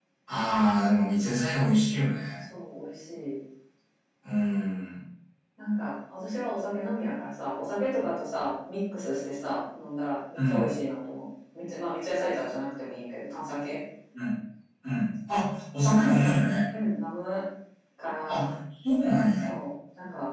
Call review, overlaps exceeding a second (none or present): none